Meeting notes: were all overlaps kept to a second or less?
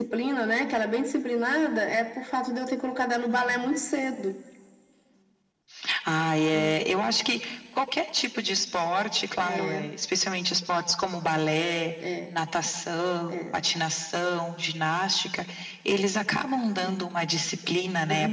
Yes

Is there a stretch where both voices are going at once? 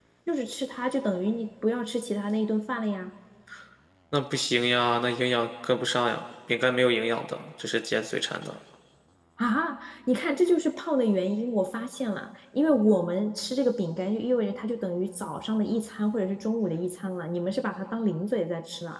No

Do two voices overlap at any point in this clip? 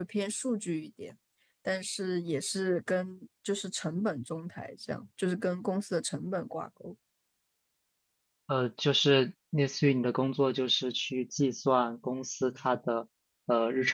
No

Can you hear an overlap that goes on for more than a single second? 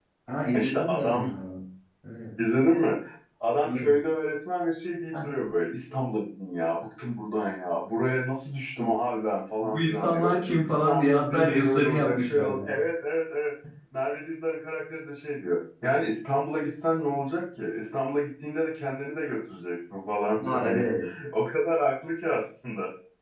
Yes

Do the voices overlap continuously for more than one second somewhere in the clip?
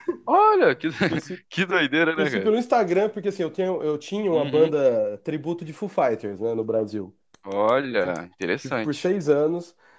No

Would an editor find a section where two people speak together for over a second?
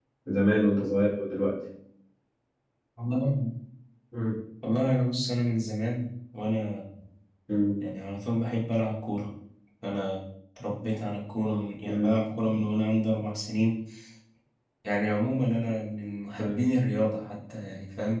No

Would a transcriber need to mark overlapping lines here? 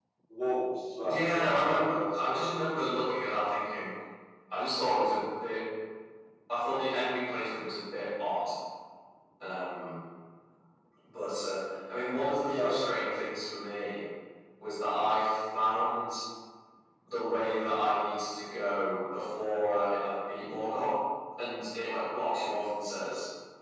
Yes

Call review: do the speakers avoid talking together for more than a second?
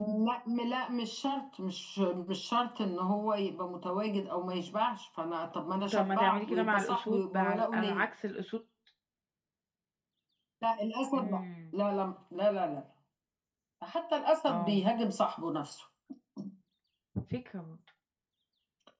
No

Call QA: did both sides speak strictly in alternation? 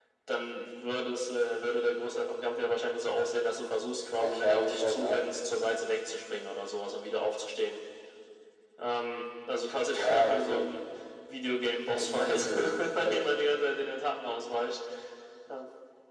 No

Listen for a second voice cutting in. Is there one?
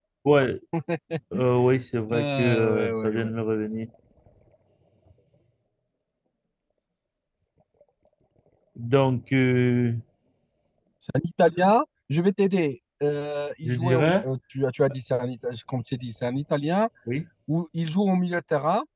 Yes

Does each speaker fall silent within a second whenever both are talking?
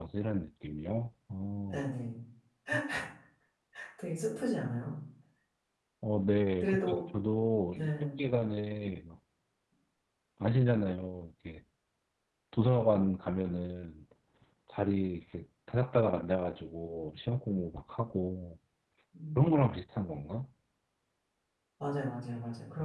Yes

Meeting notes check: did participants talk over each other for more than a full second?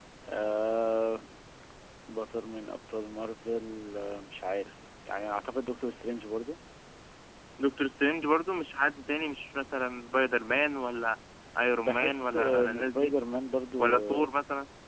Yes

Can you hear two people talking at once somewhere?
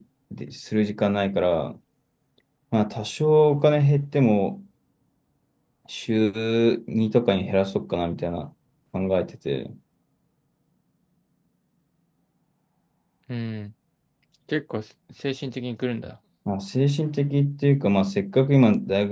No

